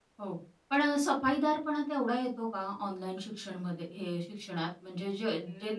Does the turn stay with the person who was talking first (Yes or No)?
Yes